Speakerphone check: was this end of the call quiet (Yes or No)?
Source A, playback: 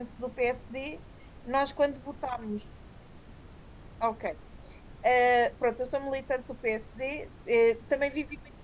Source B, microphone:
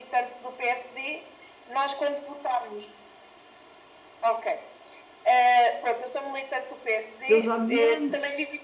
No